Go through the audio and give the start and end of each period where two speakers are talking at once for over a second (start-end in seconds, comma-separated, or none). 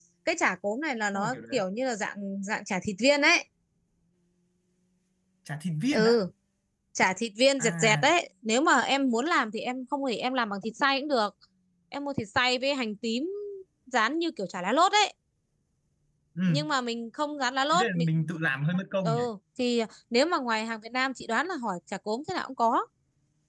none